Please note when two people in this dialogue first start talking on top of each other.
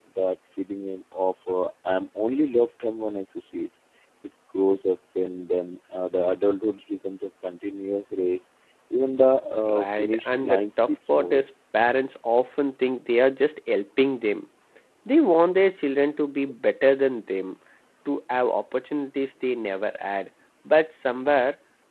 9.7 s

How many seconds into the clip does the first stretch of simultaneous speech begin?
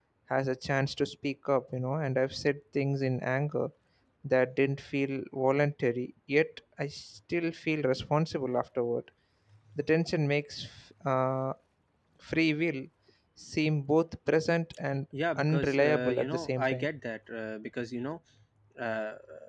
15.4 s

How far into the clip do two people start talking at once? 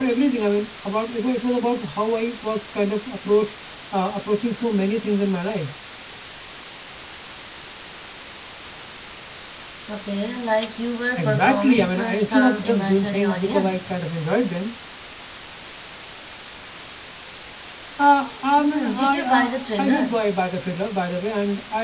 11.2 s

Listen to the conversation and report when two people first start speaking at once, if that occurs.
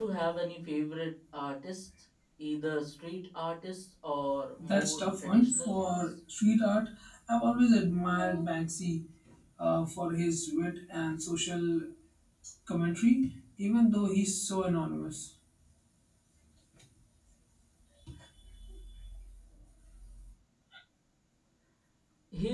4.6 s

